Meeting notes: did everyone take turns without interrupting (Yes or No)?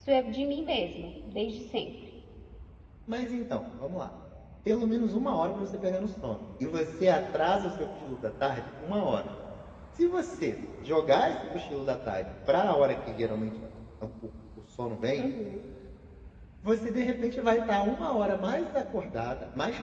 Yes